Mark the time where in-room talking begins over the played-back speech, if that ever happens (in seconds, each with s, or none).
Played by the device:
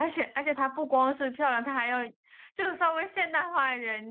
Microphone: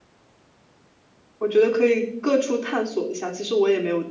1.4 s